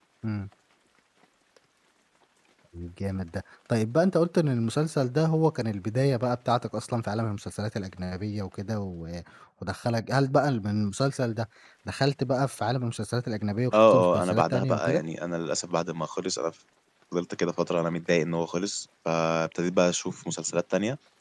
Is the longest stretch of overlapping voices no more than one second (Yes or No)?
No